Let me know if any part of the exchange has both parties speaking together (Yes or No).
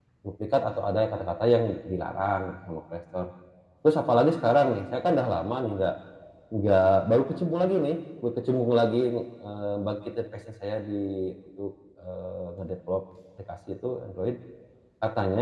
No